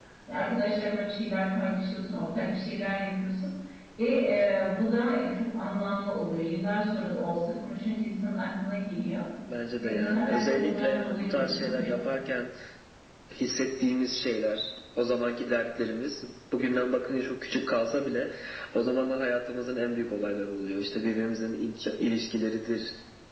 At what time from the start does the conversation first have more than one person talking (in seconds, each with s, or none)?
9.8 s